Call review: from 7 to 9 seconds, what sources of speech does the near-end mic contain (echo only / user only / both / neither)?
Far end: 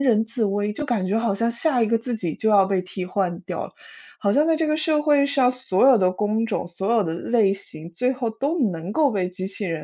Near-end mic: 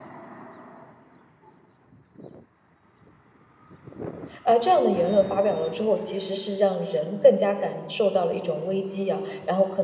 user only